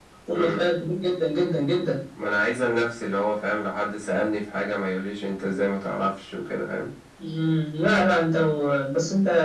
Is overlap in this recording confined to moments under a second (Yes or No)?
Yes